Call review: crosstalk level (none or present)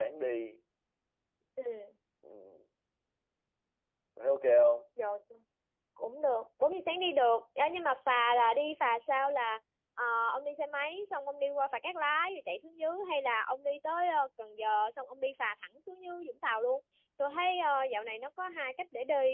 none